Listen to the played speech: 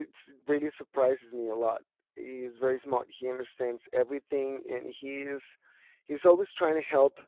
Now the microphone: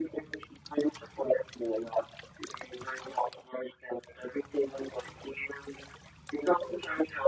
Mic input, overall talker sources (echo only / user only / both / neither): echo only